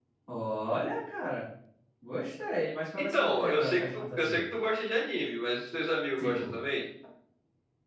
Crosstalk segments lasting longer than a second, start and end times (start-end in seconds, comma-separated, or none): 3.0-4.4